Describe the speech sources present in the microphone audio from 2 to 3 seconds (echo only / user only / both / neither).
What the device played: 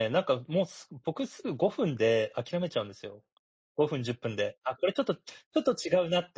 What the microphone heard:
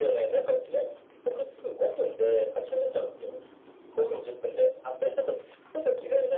echo only